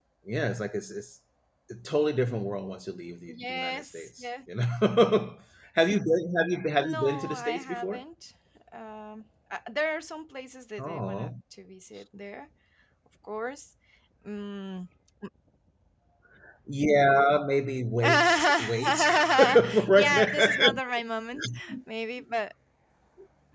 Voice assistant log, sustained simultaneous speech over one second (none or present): present